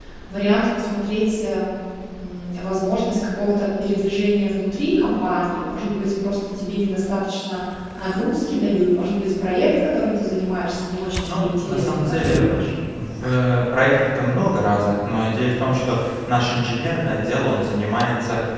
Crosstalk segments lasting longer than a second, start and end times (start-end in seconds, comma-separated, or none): 11.2-12.5